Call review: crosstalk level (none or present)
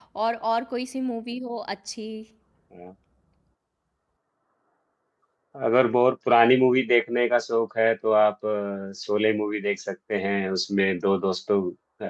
none